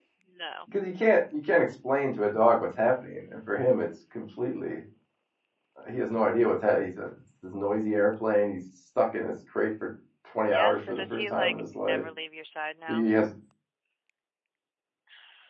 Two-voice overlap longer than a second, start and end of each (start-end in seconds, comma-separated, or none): 10.5-12.0